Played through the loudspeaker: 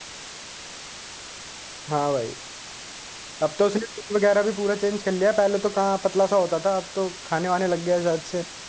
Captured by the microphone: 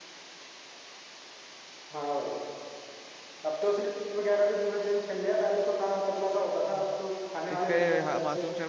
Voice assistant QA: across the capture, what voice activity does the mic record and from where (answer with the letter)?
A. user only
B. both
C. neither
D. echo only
B